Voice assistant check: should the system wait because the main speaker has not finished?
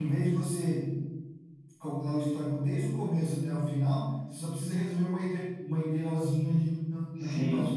No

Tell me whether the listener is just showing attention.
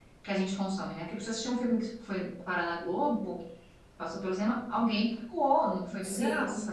Yes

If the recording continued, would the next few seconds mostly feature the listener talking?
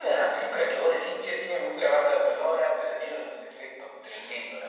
Yes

